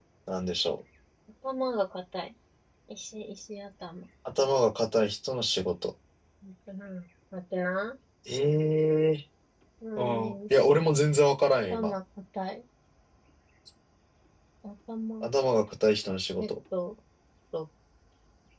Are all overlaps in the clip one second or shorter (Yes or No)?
Yes